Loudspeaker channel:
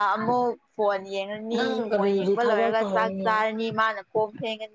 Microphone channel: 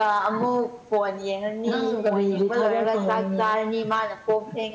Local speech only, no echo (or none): none